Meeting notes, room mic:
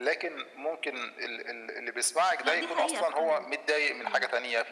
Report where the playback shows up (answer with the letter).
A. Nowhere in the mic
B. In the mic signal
B